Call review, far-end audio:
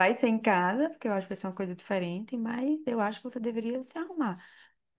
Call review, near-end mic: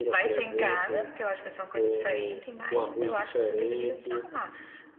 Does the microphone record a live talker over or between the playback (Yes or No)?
Yes